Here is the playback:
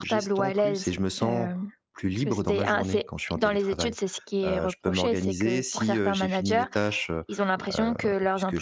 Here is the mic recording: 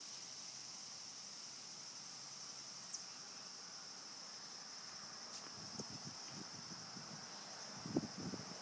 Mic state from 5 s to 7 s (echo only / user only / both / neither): neither